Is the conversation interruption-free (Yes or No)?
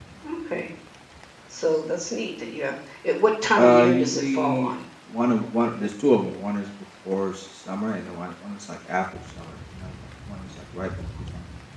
No